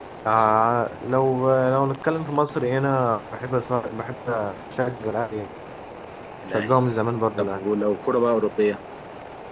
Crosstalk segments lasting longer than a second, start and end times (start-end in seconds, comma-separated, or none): none